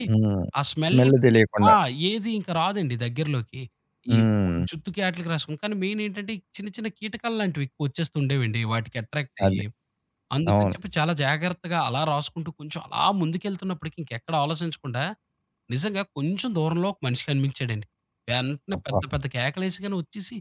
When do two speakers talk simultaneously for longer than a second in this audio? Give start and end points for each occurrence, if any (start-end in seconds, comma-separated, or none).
none